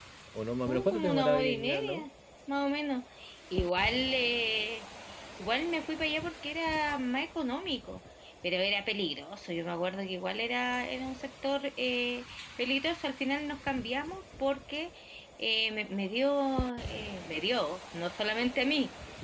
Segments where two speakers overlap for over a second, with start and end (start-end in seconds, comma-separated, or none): 0.7-2.1